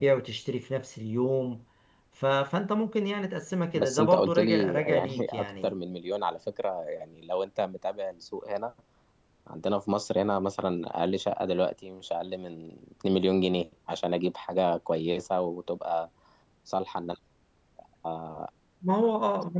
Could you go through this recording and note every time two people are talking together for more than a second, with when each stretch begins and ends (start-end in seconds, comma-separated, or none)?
3.7-5.7